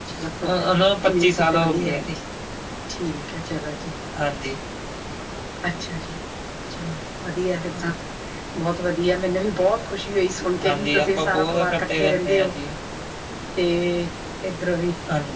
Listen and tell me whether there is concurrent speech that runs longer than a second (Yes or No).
Yes